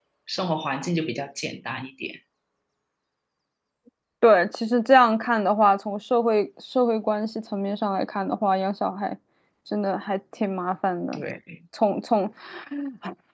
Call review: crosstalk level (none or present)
none